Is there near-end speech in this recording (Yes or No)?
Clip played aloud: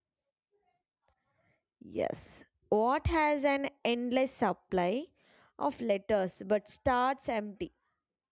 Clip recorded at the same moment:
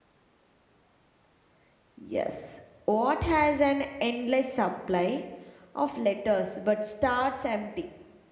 No